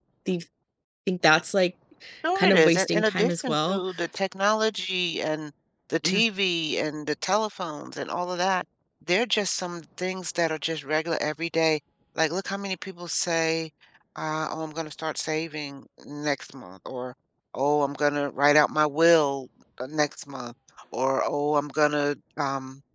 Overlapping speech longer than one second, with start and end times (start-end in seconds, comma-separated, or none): 2.4-3.8